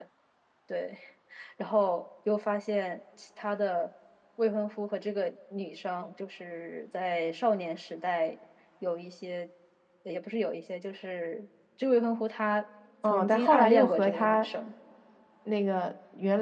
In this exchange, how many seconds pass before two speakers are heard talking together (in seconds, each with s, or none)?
13.0 s